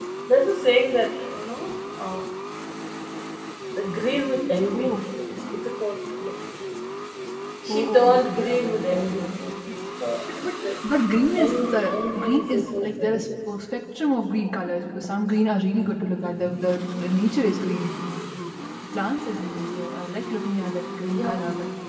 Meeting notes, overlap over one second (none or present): present